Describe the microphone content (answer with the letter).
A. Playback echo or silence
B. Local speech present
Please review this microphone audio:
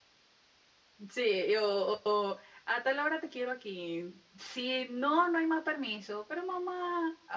B